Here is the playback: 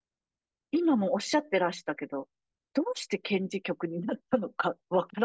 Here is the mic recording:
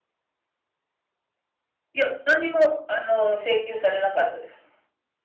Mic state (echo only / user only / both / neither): user only